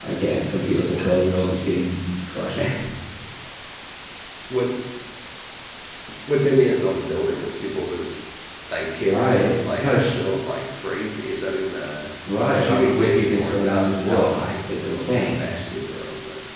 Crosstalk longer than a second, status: present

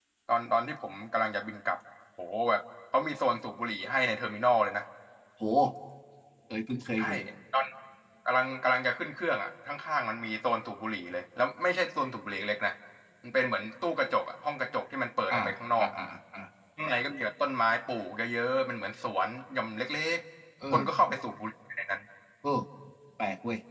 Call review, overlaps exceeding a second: none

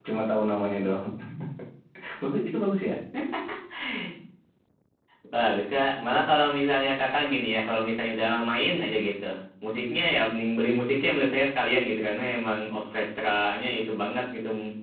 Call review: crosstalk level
none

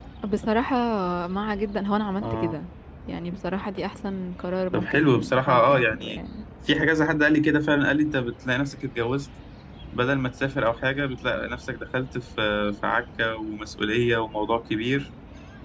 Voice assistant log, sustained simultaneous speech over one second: present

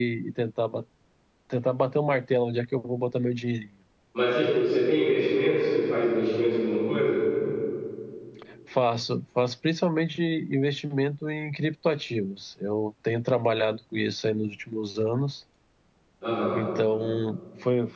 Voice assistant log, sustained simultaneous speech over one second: none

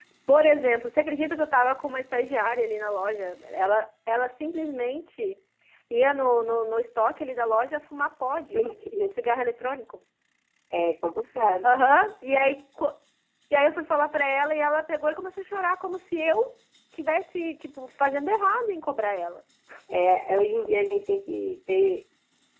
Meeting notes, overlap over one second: none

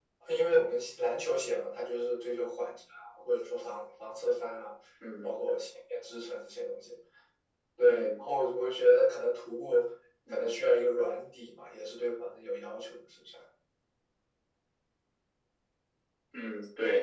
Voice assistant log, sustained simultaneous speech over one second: none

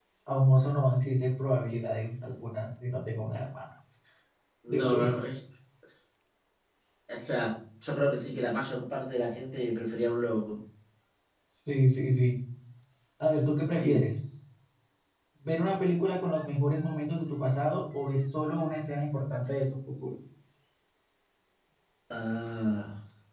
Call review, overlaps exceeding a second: none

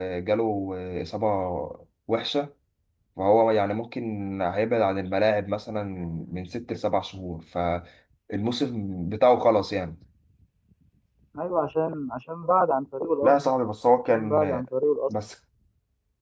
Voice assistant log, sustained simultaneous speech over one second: none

